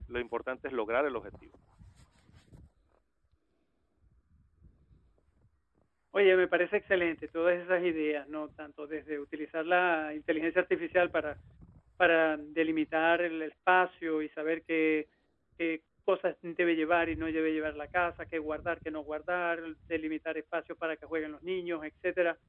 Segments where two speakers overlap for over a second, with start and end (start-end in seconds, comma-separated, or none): none